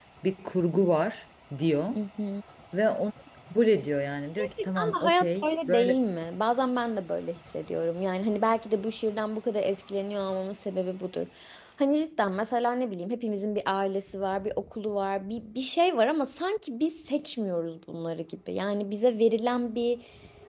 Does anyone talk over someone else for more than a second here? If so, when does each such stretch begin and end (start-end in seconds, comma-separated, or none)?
4.4-6.0